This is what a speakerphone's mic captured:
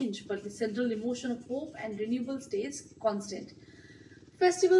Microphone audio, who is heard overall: user only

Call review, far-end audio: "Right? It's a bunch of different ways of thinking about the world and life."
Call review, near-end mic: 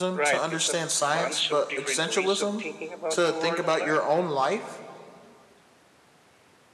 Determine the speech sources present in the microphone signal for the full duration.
both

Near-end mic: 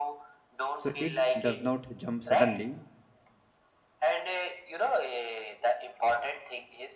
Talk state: both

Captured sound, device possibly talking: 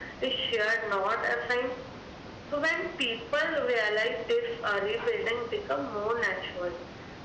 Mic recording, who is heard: echo only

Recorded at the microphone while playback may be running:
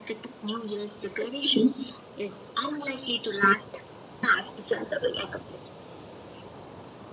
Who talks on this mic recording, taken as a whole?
echo only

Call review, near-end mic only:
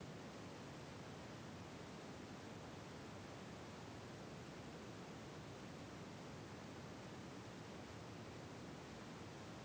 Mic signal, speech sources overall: neither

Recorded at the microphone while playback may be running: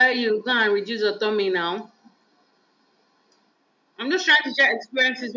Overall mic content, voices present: echo only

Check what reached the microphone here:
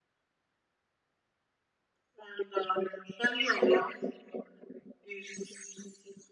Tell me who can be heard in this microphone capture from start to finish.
echo only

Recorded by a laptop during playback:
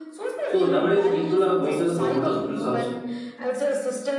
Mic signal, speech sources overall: both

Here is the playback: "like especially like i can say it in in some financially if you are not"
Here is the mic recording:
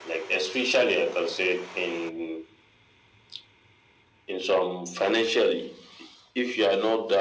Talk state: echo only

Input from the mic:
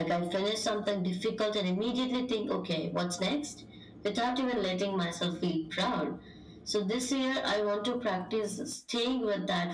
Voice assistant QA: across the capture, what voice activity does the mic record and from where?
echo only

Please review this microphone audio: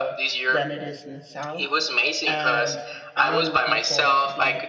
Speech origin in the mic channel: both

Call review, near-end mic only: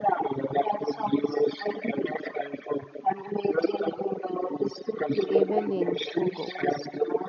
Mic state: both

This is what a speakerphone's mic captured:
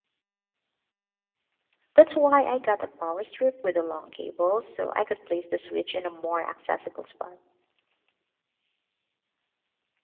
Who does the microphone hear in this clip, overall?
user only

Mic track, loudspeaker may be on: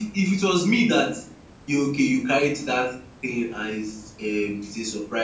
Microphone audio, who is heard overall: echo only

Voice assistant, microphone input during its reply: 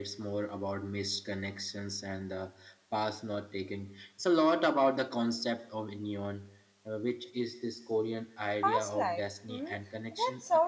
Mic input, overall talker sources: both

